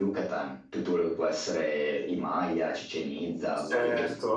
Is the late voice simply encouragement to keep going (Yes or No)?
No